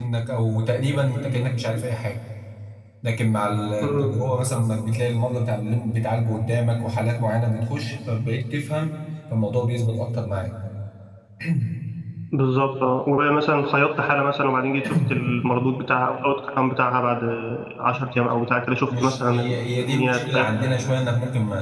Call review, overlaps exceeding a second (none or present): present